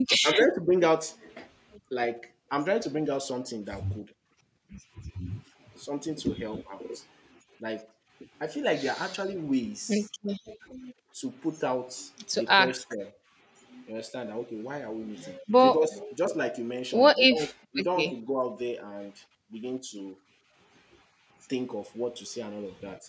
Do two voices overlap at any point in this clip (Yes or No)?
Yes